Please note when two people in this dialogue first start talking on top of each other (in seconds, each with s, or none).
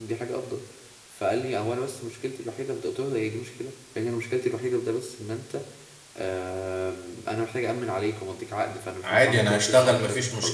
9.0 s